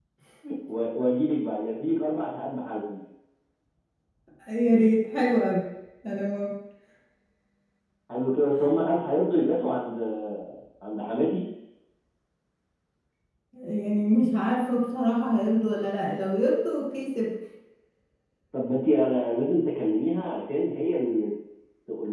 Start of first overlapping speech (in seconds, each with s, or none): none